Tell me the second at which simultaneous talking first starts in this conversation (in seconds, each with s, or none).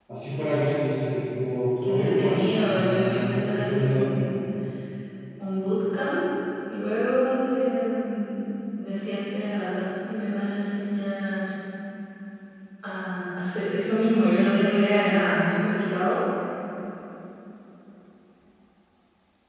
1.8 s